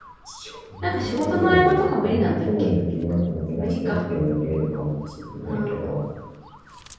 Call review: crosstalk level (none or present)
present